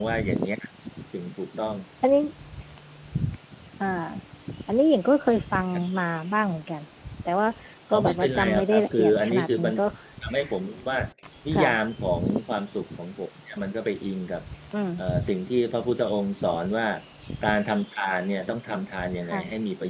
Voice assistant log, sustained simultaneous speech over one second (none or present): present